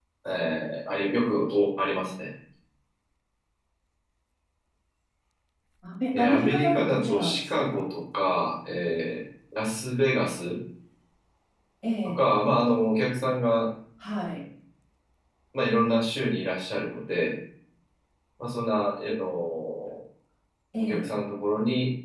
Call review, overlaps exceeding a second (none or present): present